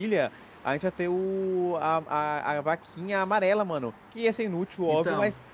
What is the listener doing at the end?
listening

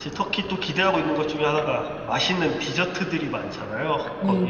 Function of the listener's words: listening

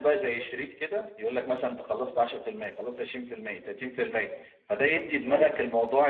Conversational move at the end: listening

